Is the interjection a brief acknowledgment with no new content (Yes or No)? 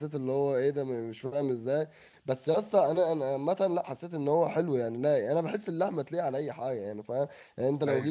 Yes